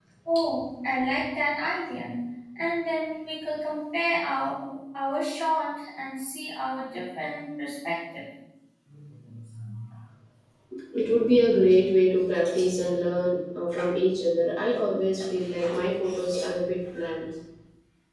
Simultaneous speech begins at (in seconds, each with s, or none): none